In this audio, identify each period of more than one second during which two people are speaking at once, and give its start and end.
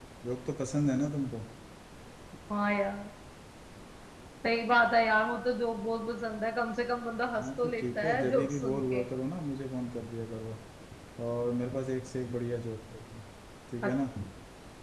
7.4-9.0

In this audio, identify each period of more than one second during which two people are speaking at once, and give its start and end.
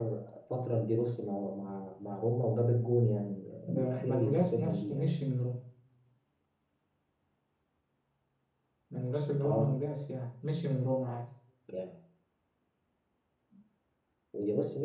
3.7-5.1

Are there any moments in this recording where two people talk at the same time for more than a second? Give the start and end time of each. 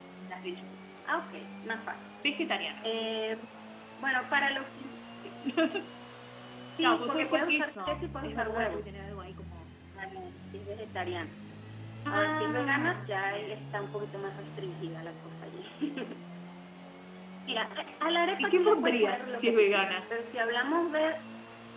6.8-8.9, 12.1-13.6, 18.4-20.1

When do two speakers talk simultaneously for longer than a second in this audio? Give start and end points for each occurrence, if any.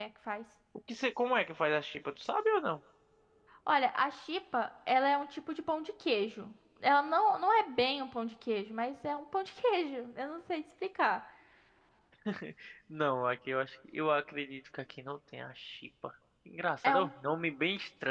none

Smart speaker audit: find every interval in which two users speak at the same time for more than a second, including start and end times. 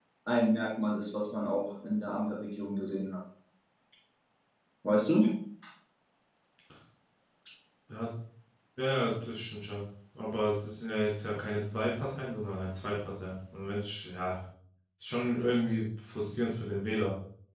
none

